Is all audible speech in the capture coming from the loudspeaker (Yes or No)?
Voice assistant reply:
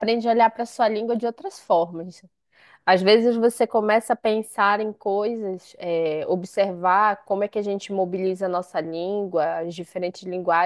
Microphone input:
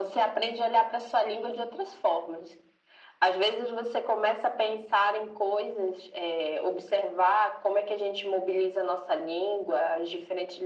Yes